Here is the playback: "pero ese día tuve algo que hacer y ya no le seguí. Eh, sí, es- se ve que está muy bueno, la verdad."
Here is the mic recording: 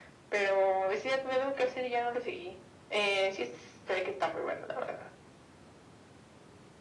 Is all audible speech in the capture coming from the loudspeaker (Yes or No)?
Yes